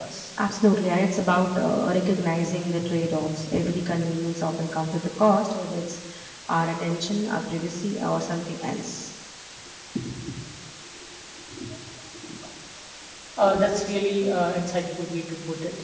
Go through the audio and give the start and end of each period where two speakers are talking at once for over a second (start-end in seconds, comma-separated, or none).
none